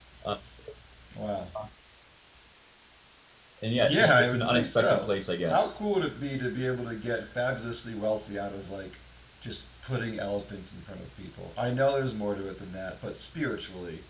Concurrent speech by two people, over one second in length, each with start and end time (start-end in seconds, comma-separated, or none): 3.8-5.1